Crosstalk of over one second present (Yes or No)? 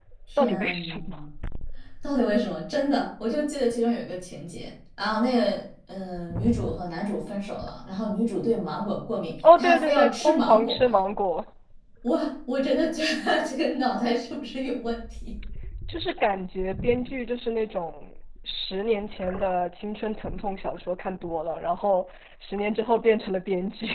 Yes